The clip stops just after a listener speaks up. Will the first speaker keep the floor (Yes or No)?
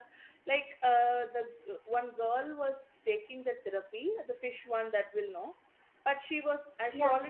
Yes